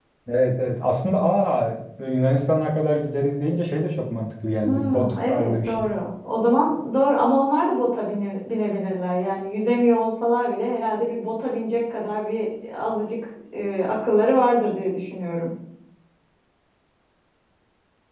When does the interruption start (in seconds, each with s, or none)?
4.6 s